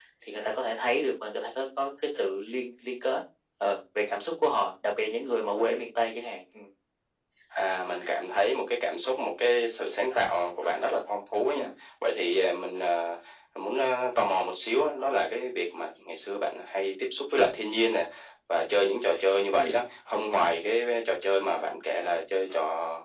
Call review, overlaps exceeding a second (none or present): none